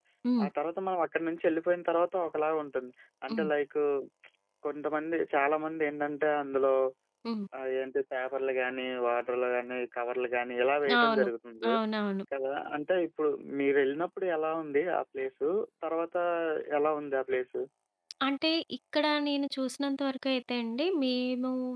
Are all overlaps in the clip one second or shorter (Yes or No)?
Yes